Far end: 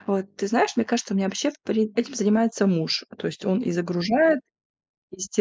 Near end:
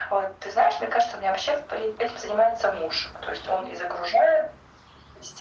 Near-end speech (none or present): none